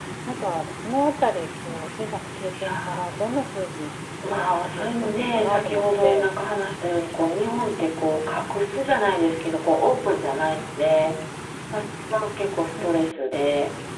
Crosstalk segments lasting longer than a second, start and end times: 4.3-6.3

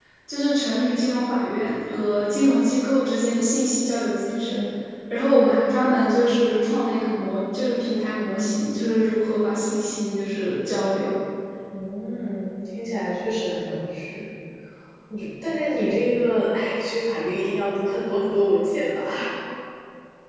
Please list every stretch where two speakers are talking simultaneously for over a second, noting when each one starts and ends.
none

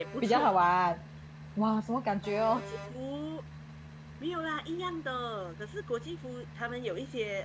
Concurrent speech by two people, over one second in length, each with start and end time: none

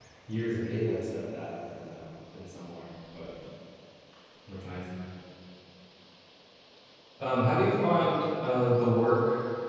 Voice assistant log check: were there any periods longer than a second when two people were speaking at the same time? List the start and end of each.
none

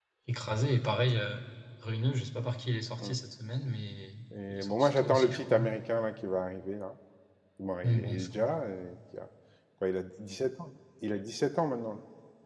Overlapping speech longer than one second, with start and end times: 4.5-5.7

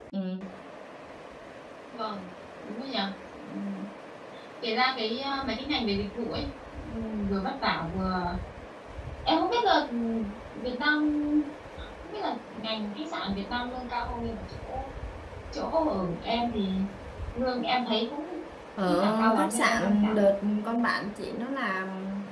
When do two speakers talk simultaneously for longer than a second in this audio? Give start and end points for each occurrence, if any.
18.9-20.2

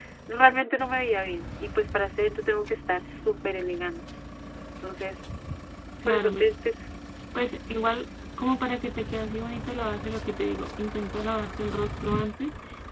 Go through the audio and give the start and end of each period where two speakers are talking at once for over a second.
none

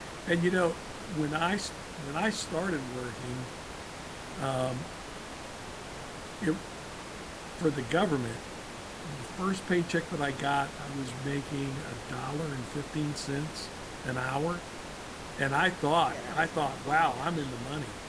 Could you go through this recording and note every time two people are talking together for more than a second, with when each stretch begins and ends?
16.1-17.5

